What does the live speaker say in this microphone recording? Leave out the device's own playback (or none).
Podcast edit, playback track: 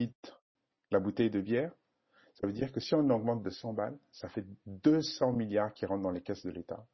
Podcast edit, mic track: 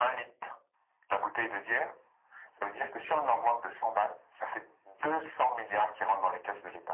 none